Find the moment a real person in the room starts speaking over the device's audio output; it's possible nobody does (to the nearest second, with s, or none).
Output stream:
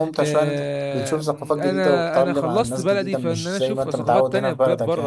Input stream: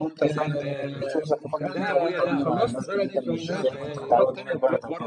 0 s